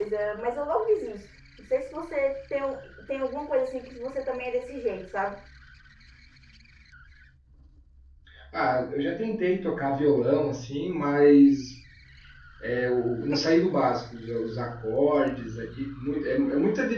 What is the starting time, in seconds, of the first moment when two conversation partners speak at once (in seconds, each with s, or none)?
none